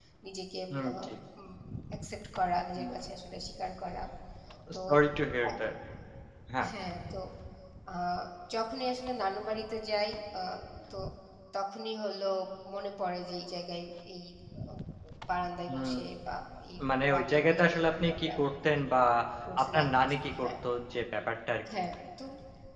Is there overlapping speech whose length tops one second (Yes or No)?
Yes